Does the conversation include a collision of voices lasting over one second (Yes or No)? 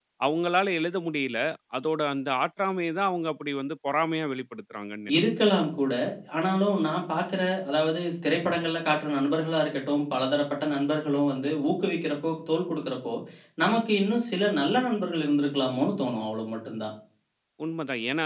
No